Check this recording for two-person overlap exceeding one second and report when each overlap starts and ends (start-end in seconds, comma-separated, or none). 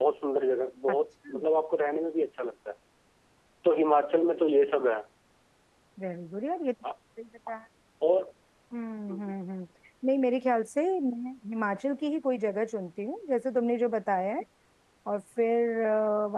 none